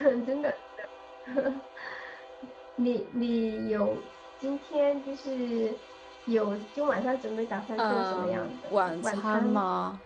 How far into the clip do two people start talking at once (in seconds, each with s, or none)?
7.8 s